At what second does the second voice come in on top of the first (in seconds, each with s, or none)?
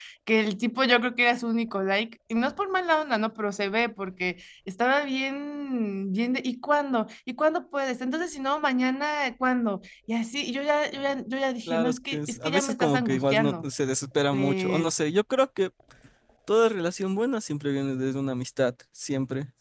11.7 s